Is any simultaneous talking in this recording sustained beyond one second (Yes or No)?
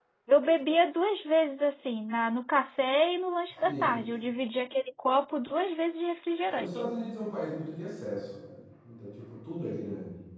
No